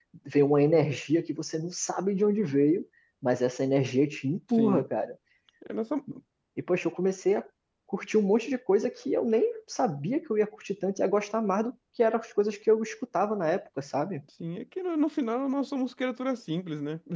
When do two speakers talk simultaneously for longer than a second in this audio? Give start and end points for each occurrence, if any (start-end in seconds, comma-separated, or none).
none